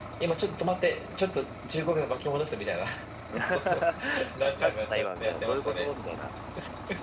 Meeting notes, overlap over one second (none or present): present